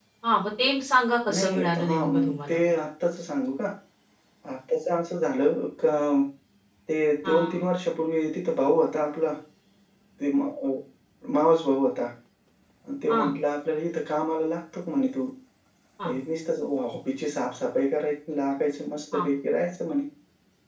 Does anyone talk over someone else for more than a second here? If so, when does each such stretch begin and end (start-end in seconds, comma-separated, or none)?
1.4-2.7